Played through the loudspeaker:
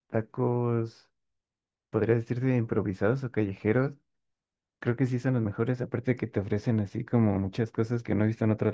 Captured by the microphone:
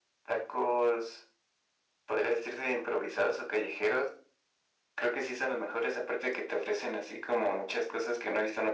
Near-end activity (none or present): none